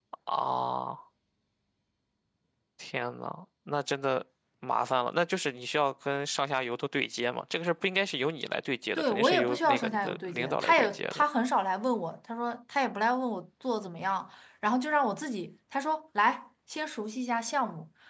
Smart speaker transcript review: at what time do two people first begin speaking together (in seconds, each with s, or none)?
8.9 s